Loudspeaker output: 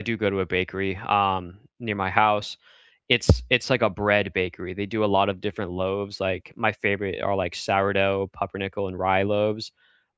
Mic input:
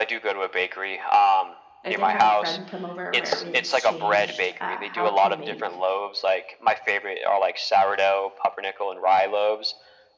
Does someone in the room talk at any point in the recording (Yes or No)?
Yes